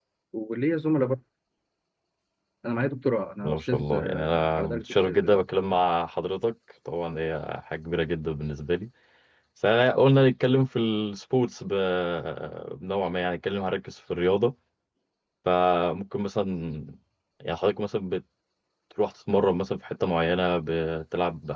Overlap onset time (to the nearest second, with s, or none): 3 s